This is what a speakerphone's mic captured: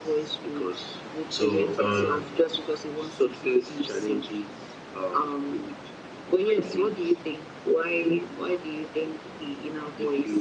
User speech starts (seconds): 1.3 s

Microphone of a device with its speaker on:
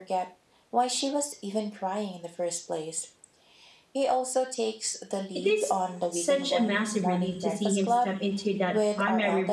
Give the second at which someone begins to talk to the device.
5.3 s

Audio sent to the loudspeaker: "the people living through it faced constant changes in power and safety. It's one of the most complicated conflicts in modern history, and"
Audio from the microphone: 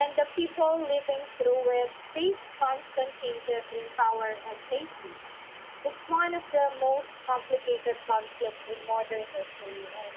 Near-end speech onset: none

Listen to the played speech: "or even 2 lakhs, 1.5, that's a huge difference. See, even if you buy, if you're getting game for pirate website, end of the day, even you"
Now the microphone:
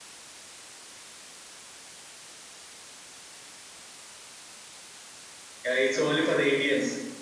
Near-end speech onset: 5.6 s

